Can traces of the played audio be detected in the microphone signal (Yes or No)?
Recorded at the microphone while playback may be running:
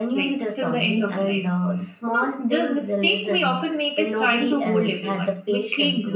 Yes